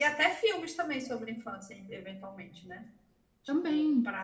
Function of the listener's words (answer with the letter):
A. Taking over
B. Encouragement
B